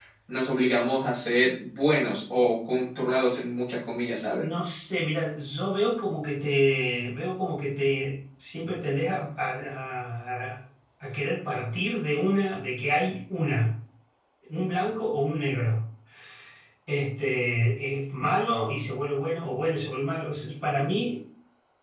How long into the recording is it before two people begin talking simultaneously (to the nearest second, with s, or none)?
none